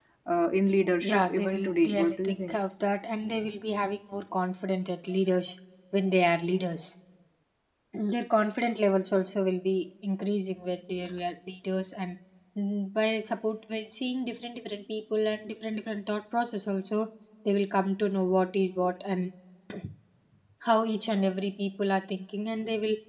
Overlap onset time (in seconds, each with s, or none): 1.0 s